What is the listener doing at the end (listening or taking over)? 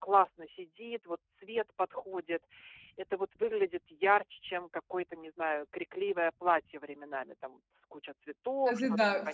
taking over